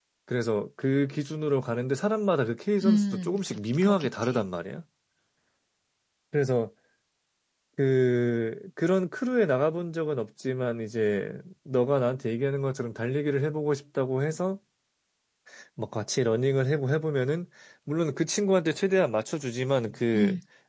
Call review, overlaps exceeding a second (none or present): present